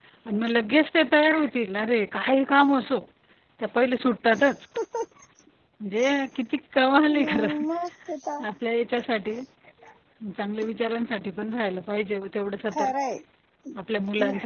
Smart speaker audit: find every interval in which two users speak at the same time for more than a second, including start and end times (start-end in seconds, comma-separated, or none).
none